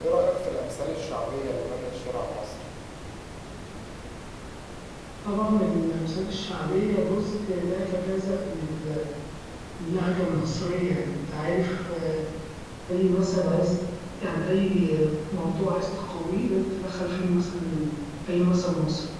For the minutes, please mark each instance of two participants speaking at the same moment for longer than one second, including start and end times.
none

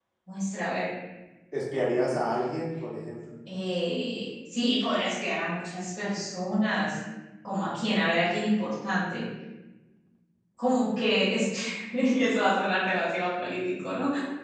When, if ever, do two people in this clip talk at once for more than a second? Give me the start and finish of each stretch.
none

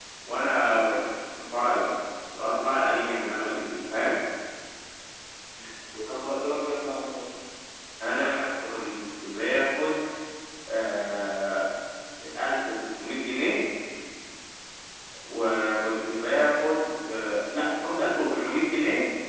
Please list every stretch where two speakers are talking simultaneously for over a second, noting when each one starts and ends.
none

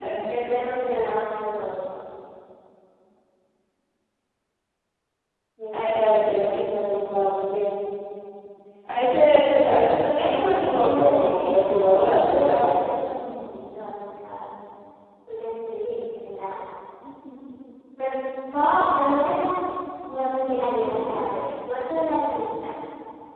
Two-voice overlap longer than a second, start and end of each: 10.2-12.9

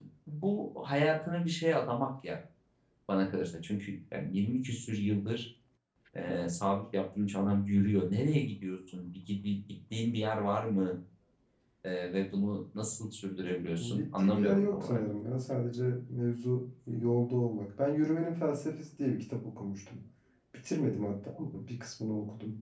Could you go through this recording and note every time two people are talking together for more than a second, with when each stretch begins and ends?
13.8-15.0

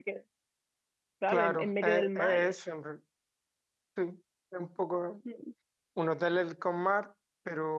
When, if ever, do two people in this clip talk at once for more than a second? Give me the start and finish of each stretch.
1.3-2.6

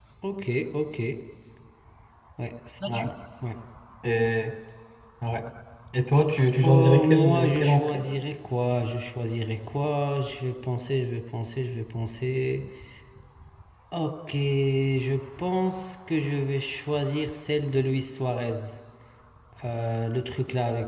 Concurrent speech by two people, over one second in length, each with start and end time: 6.6-8.1

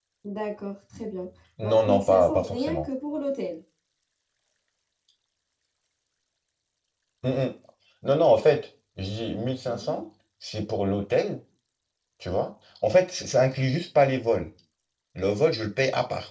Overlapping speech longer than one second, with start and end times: 1.6-2.9

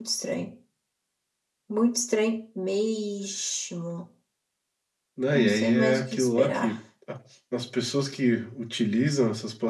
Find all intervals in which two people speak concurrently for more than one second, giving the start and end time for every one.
5.3-6.8

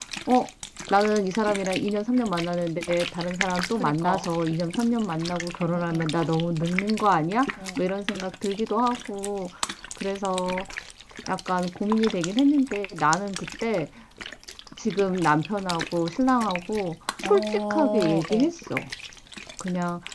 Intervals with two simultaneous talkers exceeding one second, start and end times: 17.2-18.5

